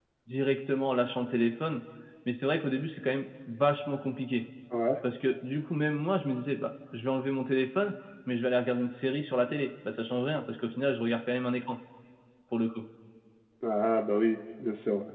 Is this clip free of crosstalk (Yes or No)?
Yes